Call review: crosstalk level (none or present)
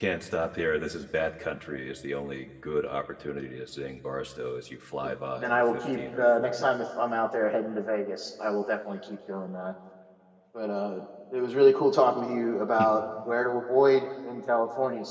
present